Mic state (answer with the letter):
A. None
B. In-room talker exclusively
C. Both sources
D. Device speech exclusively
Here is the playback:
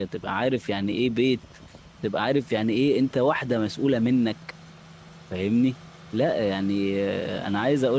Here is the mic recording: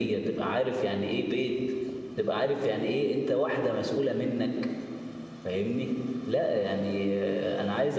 D